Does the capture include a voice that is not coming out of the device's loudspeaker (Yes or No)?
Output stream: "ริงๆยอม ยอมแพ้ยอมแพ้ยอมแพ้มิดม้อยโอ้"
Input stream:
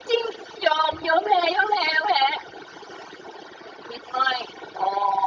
No